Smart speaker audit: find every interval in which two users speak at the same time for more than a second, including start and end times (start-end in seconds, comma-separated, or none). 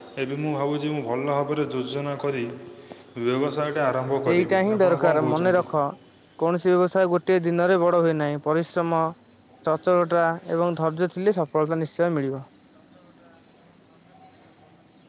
4.3-5.7